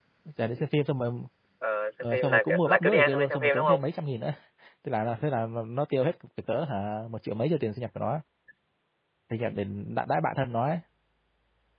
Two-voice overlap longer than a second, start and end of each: 2.0-3.9

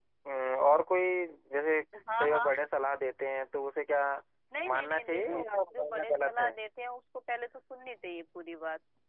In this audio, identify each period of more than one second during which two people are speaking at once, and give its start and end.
4.7-6.5

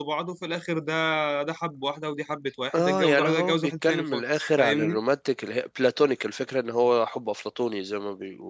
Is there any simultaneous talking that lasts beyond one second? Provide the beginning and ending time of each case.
2.7-5.0

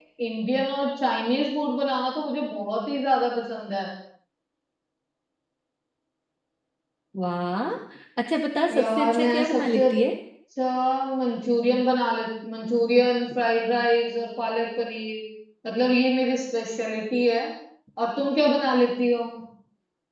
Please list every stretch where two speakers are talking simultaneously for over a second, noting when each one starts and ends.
8.7-10.0

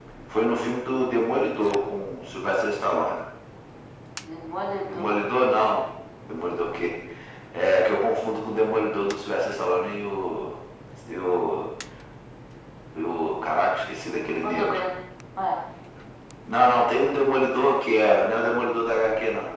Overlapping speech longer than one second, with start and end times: none

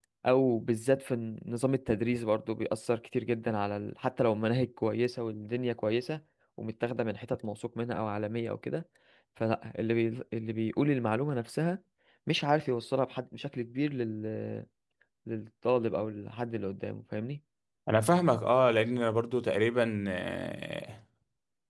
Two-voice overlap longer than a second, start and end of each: none

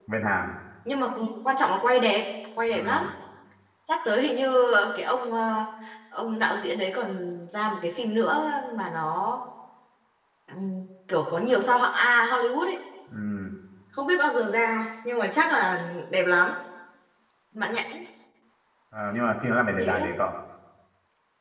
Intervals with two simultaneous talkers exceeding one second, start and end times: none

